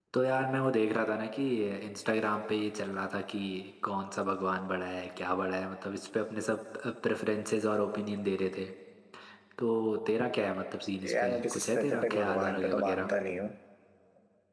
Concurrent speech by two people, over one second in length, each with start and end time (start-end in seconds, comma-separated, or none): 11.1-13.1